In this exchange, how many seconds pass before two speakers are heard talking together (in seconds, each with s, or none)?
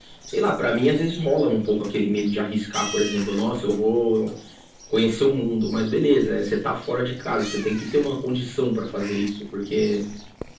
none